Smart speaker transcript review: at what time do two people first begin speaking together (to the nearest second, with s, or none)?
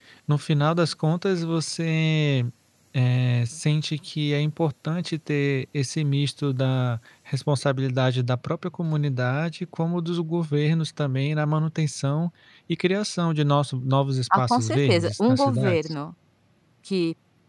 14 s